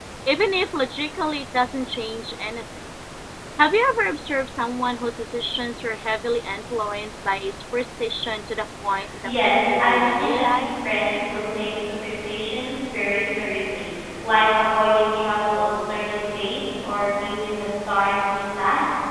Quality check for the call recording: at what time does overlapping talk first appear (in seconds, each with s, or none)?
9.4 s